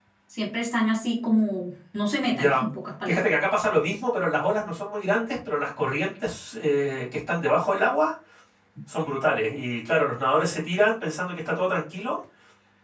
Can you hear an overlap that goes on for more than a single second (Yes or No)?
No